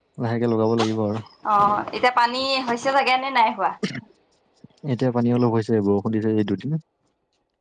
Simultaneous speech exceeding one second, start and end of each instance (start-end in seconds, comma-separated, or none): none